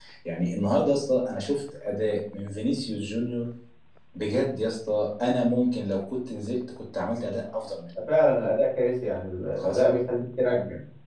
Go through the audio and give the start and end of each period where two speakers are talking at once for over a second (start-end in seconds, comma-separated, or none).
none